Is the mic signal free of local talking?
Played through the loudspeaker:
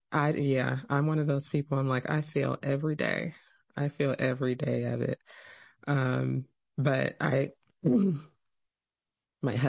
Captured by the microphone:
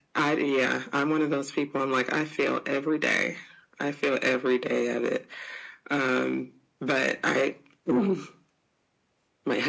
Yes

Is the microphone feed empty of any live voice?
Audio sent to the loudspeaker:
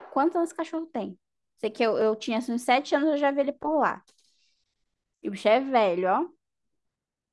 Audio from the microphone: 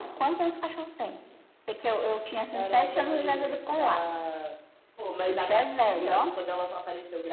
No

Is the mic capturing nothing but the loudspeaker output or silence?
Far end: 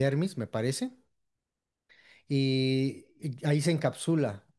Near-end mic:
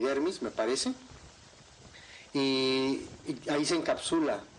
Yes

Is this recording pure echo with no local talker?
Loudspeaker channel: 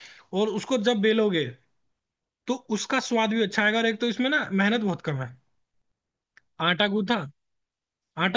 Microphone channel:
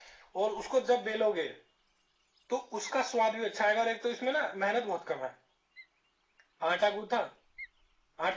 Yes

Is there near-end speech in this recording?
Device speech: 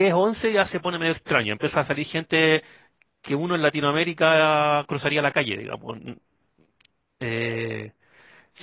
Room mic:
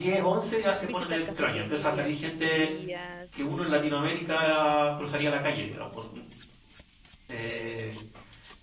Yes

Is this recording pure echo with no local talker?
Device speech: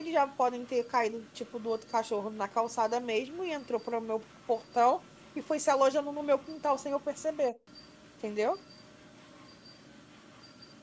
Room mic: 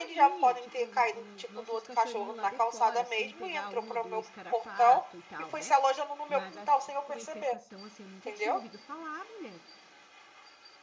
No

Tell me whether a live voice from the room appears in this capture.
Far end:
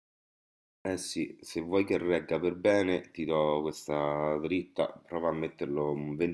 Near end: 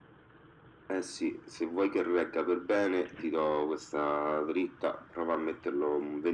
No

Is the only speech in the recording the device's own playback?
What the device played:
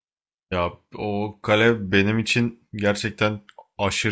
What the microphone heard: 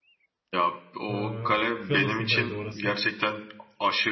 No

